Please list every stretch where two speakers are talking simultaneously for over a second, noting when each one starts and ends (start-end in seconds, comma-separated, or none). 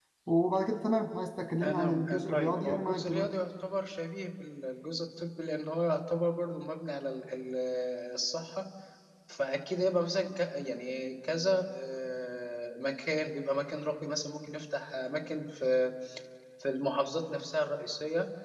1.6-3.3